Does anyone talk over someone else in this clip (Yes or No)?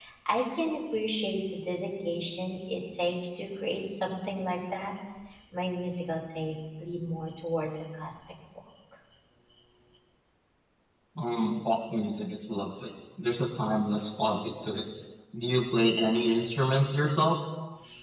No